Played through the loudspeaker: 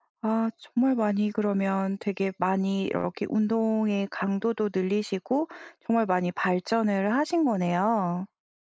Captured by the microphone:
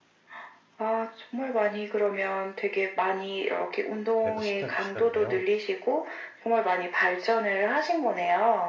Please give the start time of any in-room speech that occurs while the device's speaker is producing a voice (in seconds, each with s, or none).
4.2 s